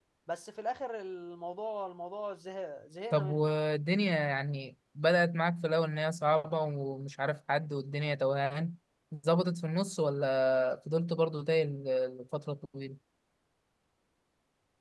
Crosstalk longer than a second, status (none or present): none